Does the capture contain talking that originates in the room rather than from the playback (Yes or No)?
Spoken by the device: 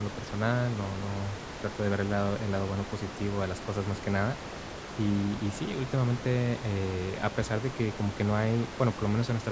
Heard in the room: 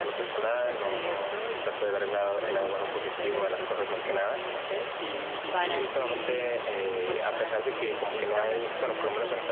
Yes